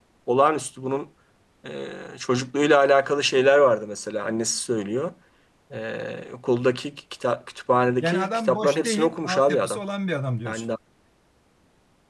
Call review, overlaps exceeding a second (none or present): present